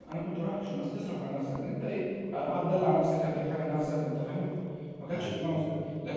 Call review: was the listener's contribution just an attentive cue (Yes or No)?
Yes